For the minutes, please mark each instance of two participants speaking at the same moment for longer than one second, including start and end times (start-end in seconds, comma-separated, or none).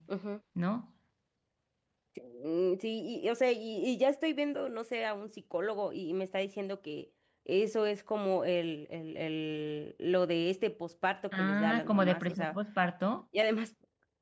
11.3-12.5